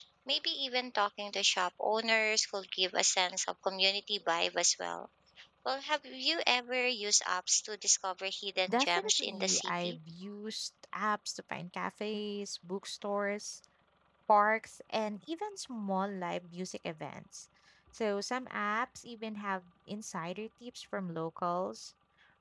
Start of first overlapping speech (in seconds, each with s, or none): 8.7 s